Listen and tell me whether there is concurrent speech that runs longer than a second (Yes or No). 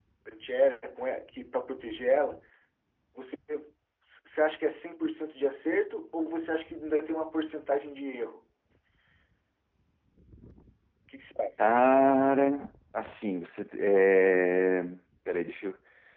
No